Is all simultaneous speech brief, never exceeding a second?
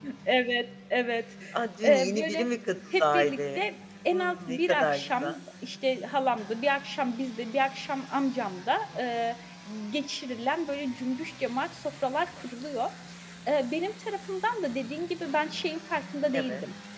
No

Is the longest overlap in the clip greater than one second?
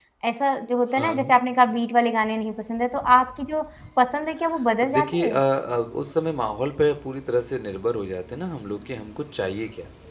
No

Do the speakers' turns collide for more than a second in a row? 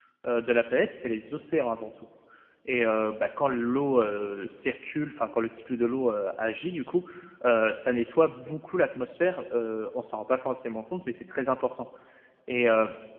No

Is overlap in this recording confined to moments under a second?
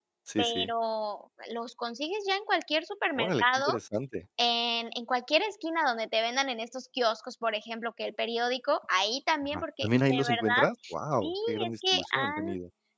No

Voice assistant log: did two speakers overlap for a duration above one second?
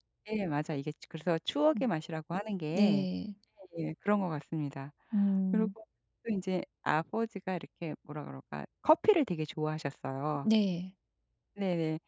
No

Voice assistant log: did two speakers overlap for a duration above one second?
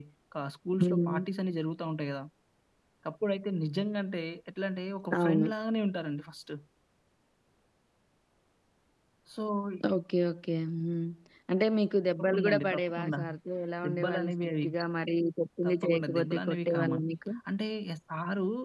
Yes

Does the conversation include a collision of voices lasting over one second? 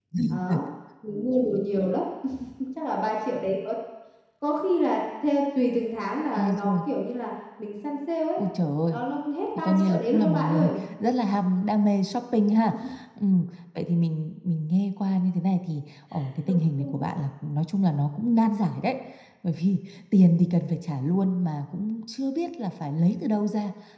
Yes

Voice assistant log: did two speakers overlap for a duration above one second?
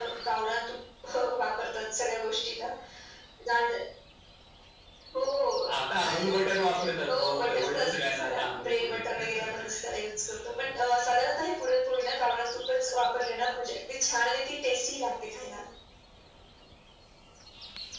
Yes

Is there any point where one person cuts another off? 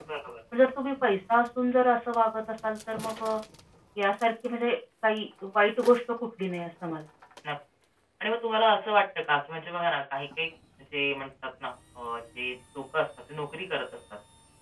No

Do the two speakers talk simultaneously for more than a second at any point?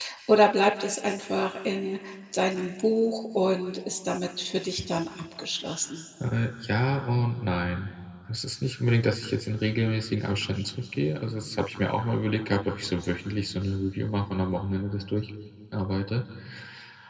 No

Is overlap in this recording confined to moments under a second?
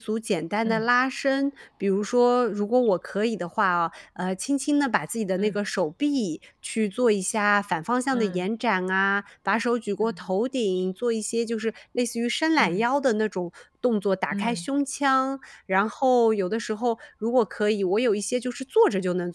Yes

